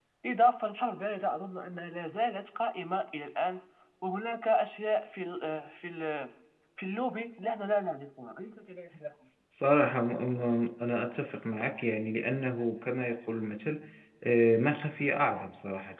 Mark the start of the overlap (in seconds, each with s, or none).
none